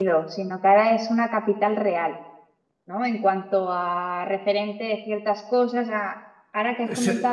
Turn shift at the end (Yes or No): No